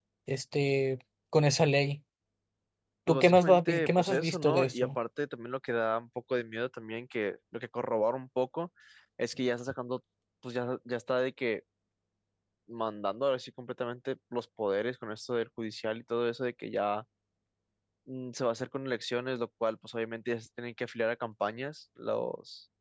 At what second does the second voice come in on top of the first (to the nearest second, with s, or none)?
3 s